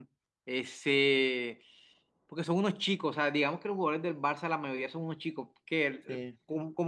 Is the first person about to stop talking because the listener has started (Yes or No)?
No